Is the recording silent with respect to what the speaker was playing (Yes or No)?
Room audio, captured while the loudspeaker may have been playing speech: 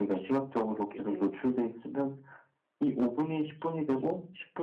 No